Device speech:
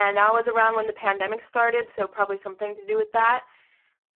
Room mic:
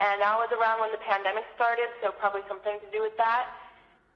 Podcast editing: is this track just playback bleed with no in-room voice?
Yes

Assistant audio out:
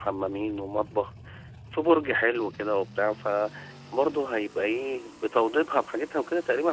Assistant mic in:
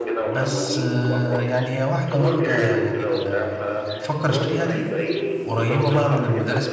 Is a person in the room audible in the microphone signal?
Yes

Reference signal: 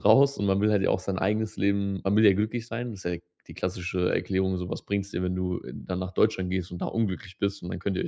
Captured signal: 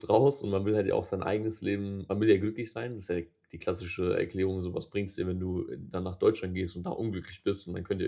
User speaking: No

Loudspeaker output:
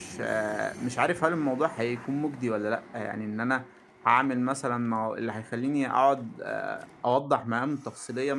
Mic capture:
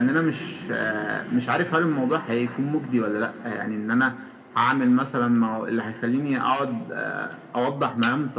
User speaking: No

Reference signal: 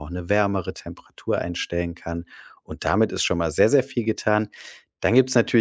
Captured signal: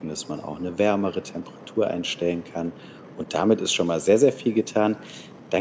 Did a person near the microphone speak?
No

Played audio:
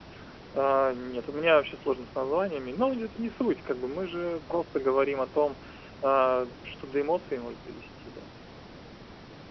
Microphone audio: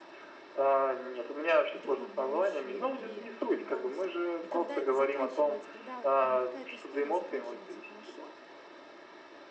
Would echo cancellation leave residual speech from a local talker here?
Yes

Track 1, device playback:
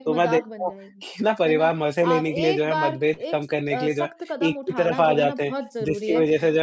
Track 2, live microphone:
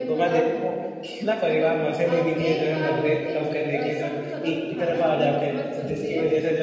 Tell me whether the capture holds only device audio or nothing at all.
Yes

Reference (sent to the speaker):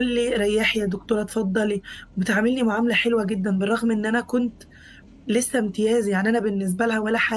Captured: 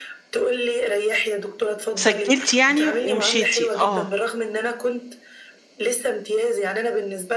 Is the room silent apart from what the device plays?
No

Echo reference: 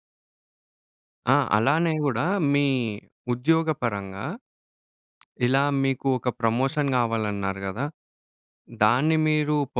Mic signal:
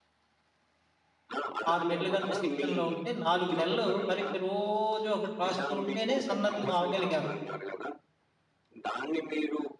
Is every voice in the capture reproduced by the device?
No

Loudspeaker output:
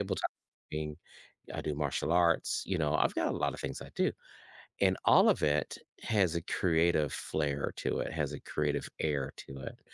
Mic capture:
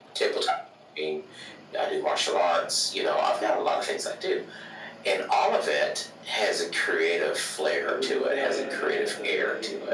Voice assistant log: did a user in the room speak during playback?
Yes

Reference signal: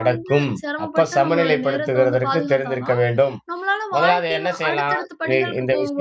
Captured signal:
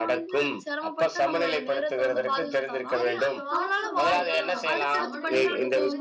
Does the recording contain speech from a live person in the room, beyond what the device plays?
Yes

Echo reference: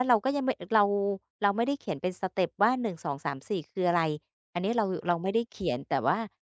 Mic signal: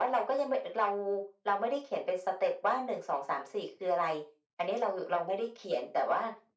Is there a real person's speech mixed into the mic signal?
No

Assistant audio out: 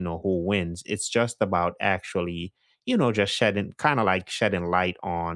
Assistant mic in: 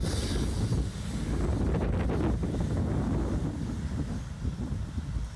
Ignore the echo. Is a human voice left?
No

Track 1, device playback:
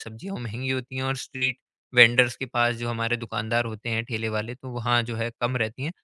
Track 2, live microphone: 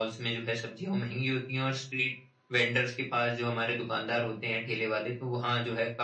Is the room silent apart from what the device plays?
Yes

